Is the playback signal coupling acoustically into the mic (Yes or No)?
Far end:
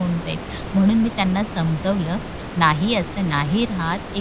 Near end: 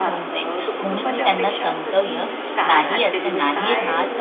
Yes